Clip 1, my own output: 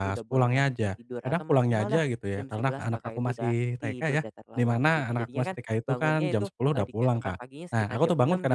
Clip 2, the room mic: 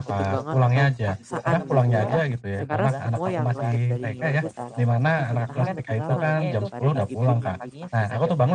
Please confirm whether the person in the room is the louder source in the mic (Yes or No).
No